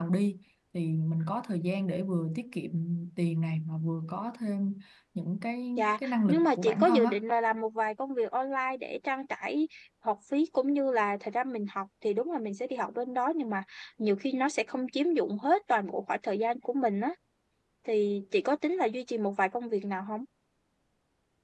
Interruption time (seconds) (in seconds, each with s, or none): 5.8 s